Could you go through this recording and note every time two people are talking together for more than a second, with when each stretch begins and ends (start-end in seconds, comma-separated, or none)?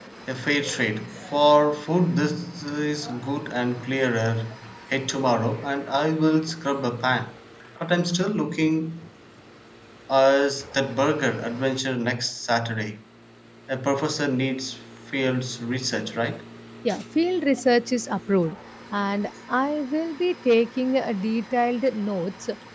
none